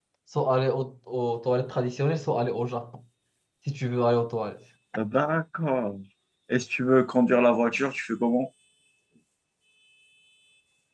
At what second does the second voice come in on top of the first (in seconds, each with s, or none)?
none